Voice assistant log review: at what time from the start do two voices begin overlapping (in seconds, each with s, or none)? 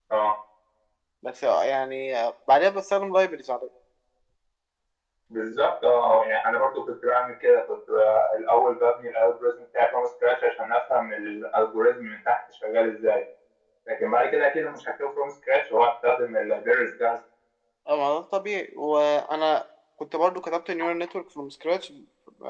none